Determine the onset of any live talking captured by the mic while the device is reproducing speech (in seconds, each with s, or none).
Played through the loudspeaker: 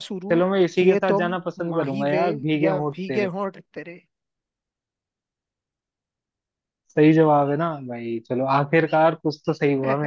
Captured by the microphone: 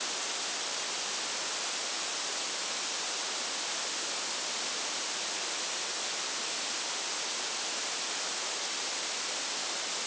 none